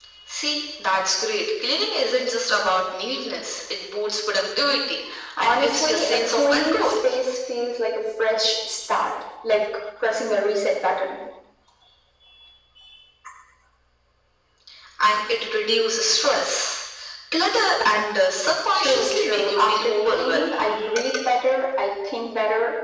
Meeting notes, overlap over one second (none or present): present